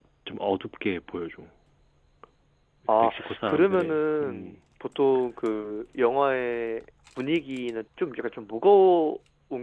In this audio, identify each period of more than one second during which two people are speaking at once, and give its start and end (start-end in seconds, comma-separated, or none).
3.0-4.6